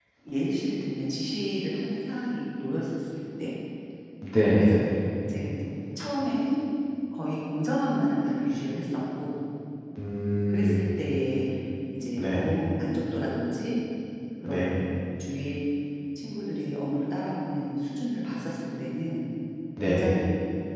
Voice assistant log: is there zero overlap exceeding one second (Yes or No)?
Yes